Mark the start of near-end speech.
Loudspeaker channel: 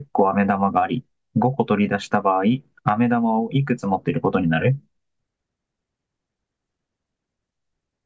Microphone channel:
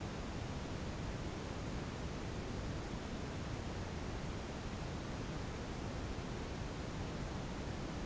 none

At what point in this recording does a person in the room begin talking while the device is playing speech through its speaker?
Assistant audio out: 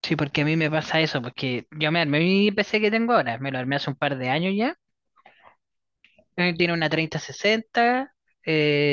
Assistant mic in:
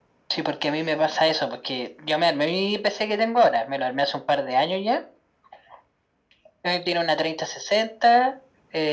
none

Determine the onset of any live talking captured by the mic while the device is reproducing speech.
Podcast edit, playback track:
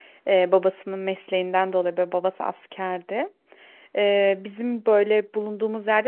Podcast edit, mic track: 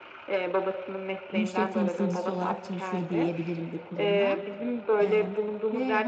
1 s

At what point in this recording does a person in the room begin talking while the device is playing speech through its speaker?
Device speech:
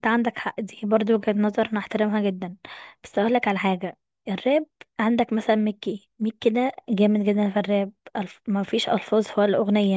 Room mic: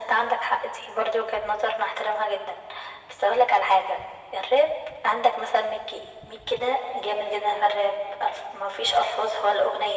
none

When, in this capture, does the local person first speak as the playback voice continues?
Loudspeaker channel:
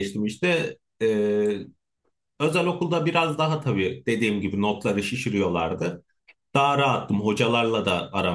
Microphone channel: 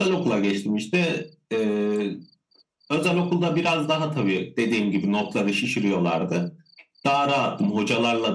none

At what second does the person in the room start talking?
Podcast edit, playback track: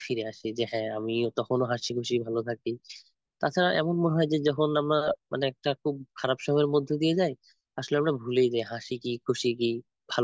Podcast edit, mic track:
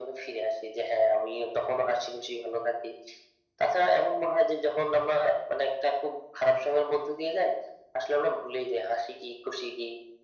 none

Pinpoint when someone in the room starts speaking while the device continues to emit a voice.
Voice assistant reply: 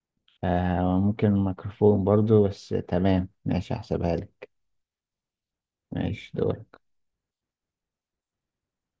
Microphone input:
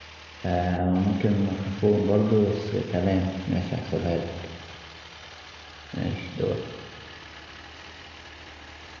none

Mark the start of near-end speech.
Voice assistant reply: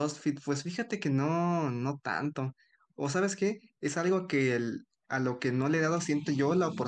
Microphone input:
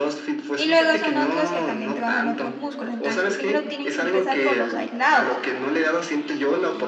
1 s

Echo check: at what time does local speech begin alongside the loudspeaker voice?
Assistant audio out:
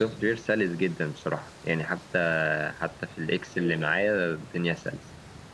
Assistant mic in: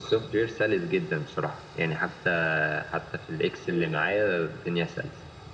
none

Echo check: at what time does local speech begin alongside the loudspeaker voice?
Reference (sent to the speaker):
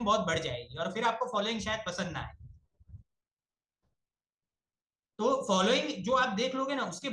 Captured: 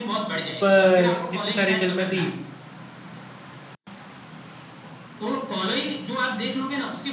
1 s

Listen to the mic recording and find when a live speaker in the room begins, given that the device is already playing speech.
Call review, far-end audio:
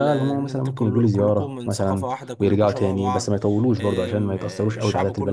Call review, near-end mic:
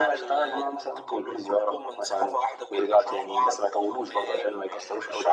none

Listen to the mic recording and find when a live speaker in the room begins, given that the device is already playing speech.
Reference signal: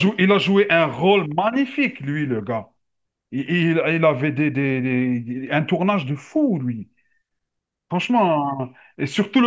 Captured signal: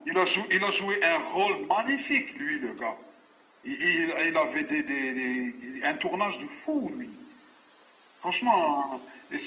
none

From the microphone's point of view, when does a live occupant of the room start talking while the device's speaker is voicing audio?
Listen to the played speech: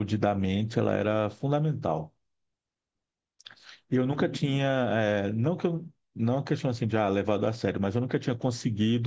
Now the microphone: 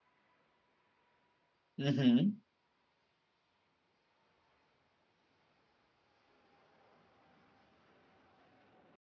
2 s

